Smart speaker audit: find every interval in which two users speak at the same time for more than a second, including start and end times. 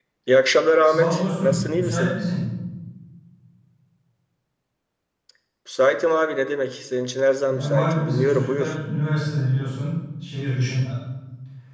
0.8-2.1, 7.5-8.7

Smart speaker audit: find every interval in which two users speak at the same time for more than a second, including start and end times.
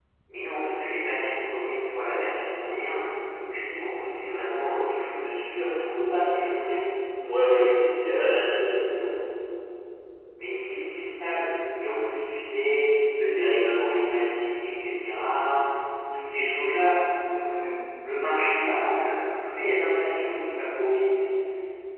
7.4-9.0

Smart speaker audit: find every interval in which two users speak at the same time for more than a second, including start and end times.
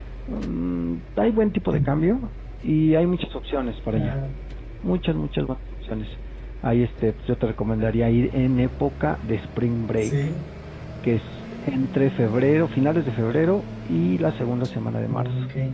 none

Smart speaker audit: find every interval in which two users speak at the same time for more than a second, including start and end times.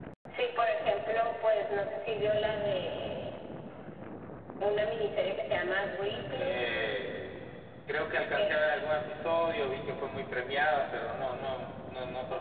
none

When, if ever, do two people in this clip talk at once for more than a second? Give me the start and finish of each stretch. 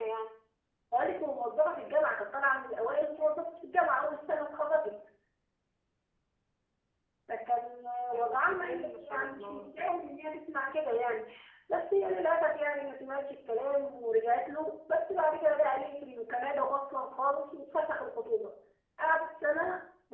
8.1-9.7

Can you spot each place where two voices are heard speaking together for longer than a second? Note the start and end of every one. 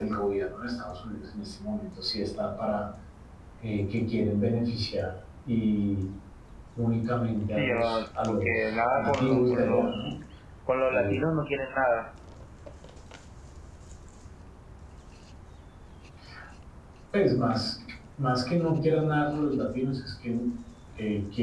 7.5-10.1

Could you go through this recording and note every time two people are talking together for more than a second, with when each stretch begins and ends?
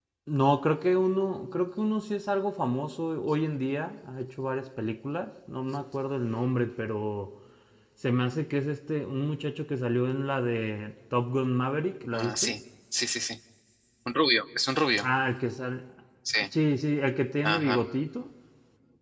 none

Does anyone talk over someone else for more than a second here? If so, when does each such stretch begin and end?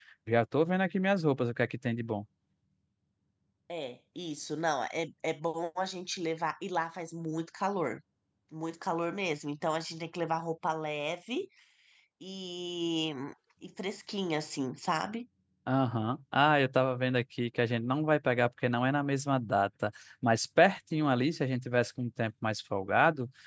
none

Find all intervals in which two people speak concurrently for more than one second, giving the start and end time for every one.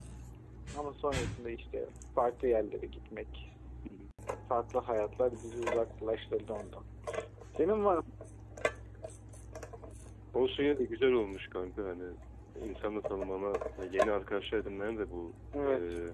none

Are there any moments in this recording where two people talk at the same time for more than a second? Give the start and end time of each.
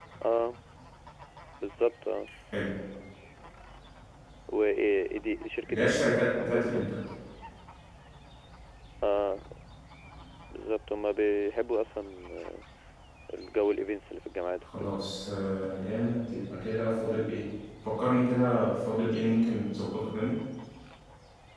5.7-6.9

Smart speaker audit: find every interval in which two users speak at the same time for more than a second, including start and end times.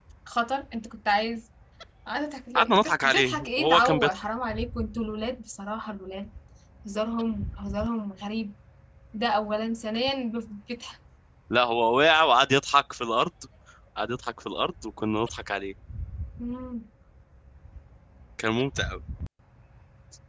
2.6-4.2

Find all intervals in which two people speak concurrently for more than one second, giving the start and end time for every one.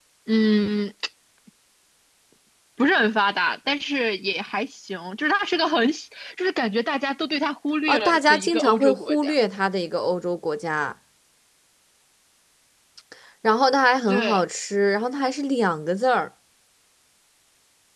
7.9-9.3

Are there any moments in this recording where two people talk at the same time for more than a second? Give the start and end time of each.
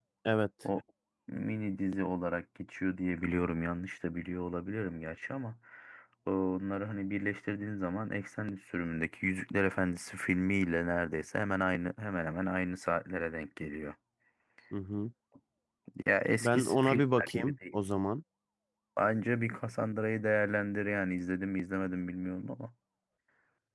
16.4-17.7

